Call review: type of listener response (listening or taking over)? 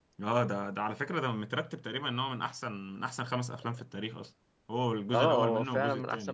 taking over